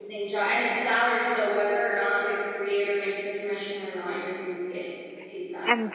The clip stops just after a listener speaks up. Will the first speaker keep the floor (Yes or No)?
No